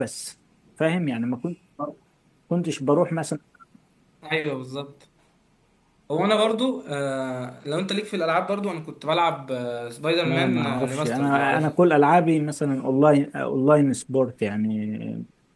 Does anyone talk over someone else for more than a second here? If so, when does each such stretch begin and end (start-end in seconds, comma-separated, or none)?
10.2-11.7